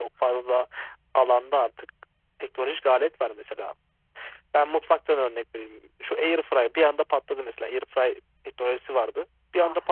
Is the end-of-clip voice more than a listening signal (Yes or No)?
No